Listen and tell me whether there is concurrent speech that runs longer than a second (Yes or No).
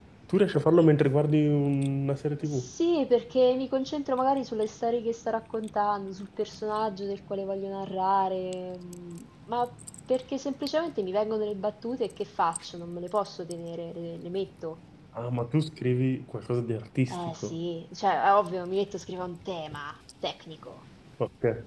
No